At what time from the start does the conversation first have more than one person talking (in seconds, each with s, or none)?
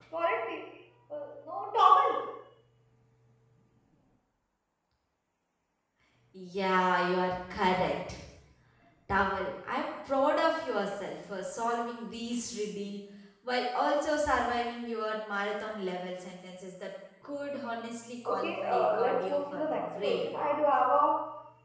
18.2 s